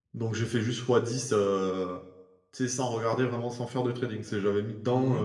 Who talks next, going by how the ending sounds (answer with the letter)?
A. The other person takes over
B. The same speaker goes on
A